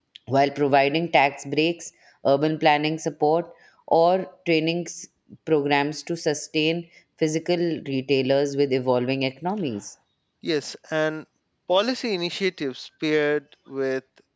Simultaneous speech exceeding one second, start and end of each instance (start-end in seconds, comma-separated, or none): none